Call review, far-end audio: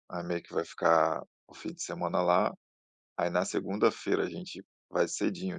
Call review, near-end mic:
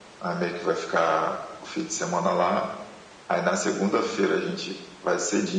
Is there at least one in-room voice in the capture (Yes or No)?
No